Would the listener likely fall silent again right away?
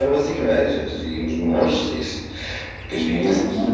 Yes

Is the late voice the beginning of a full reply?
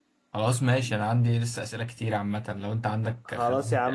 Yes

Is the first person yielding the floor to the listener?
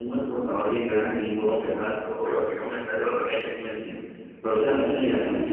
No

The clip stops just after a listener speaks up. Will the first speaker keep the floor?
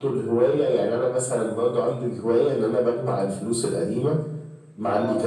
Yes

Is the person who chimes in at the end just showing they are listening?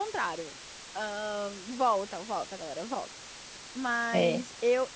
Yes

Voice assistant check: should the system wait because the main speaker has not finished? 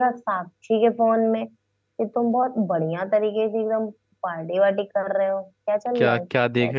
No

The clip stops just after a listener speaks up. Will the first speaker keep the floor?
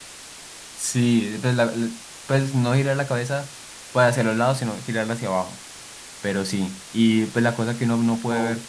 Yes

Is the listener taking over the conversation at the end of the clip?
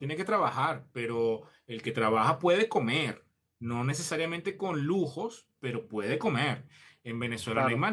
No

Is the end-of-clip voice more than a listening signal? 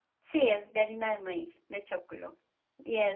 Yes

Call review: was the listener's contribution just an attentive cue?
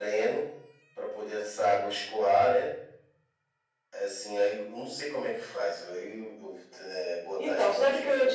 No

